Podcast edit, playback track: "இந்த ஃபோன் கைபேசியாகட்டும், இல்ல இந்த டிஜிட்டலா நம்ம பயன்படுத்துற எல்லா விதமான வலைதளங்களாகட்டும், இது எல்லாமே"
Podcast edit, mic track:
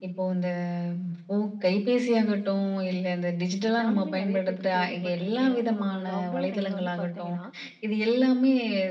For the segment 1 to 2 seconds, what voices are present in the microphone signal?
echo only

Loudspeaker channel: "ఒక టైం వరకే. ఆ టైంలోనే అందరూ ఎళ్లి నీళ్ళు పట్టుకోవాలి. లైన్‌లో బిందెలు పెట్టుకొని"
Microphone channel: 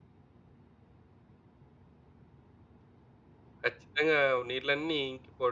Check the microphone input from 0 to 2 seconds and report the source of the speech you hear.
neither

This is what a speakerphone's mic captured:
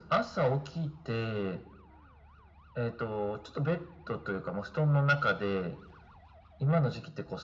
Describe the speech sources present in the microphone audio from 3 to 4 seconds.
echo only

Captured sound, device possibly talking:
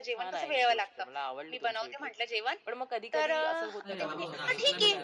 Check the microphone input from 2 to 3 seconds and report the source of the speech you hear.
echo only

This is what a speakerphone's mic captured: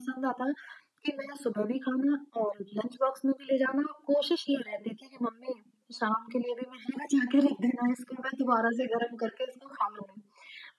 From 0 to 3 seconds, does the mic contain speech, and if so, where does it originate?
echo only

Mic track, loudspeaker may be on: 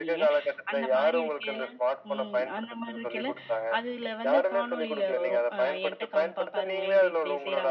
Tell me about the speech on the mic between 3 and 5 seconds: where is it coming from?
both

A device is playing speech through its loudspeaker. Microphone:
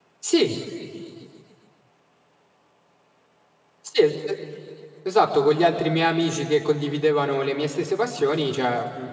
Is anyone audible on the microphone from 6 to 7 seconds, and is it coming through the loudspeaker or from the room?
user only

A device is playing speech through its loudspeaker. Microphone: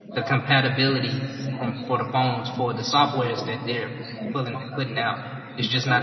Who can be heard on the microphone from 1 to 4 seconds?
both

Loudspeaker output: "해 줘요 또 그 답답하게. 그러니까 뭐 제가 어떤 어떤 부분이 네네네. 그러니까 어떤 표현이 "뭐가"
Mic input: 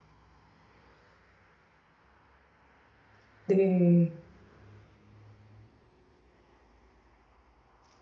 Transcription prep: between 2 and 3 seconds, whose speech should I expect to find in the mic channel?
neither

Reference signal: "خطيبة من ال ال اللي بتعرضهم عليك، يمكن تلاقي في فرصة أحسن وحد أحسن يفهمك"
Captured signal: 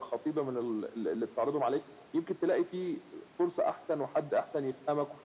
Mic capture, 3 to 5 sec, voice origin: echo only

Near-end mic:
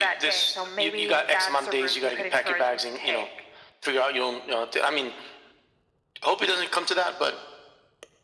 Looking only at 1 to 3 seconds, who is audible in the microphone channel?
echo only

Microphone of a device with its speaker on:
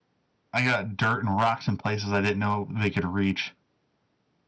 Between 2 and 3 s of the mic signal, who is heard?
user only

